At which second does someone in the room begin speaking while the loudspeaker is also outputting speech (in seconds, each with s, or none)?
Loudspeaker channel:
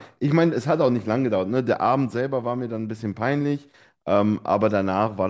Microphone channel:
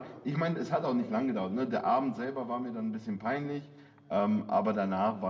none